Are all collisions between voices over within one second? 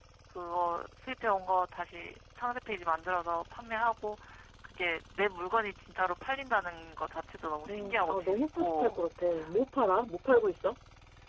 No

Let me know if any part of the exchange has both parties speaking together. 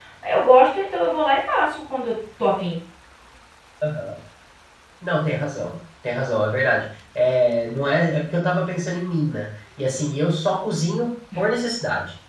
No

